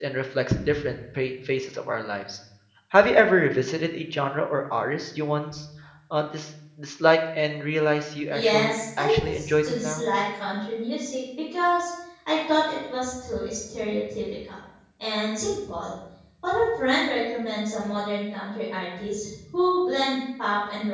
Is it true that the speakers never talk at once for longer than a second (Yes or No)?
No